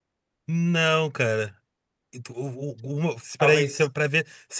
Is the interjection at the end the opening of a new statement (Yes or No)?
No